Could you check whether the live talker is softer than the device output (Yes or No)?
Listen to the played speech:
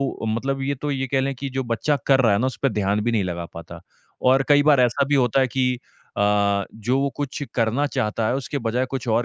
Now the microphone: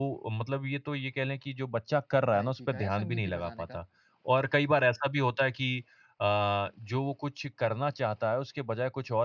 Yes